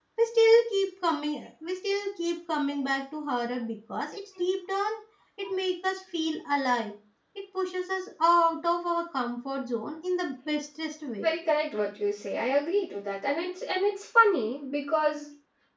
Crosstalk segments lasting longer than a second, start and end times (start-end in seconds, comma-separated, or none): none